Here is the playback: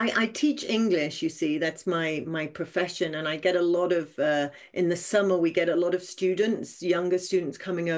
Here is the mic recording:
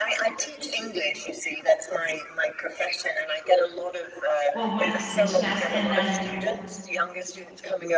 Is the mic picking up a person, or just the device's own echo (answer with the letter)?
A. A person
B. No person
A